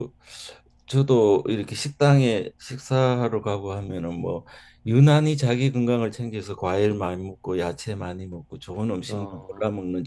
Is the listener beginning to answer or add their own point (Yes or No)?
No